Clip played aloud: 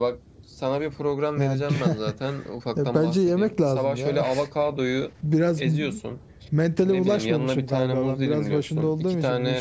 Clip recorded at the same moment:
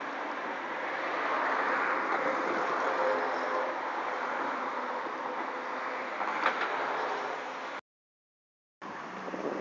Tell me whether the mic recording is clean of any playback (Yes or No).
Yes